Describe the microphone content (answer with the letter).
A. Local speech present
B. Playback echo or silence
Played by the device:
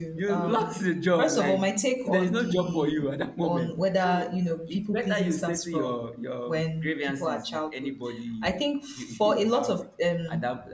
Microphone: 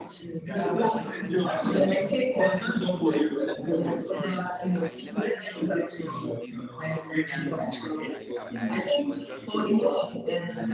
A